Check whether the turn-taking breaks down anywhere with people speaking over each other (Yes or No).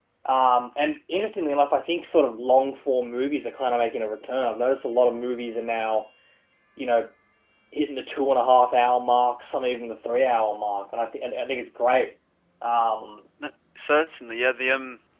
No